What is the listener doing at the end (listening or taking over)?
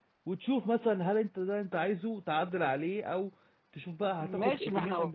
taking over